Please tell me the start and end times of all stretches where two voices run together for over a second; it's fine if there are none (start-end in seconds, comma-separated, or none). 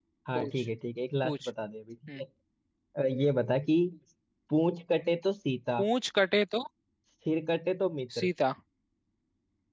none